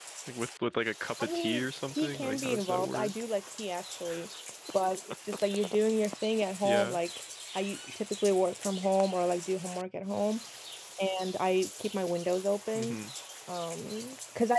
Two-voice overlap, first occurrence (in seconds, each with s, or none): 1.2 s